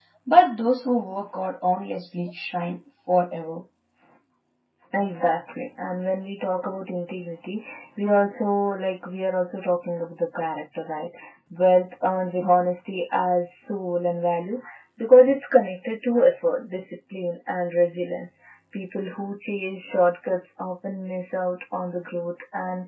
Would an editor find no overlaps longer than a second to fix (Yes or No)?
Yes